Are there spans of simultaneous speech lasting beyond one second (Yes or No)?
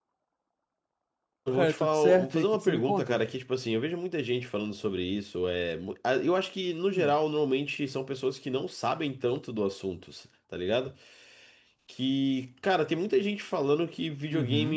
Yes